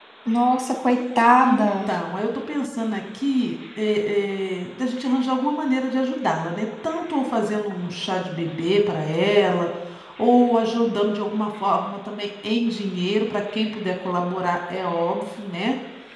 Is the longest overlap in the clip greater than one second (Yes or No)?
No